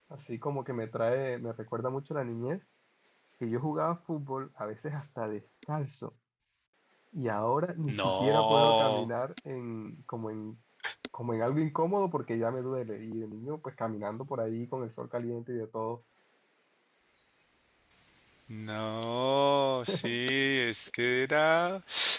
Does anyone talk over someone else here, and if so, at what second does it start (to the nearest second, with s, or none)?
8 s